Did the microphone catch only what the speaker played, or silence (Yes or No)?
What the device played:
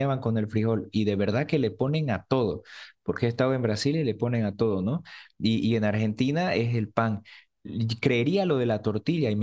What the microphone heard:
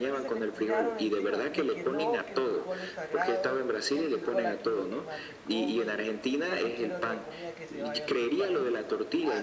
No